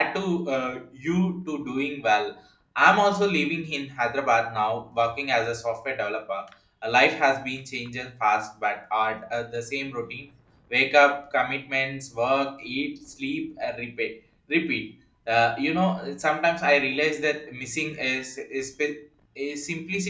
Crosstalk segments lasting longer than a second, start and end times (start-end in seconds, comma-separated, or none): none